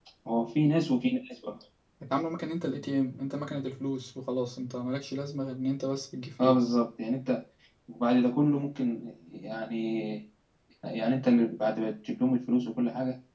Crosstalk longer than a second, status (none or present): none